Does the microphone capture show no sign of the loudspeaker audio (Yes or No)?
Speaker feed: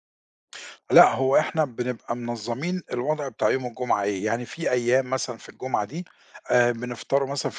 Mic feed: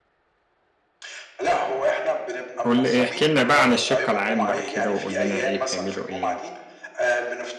No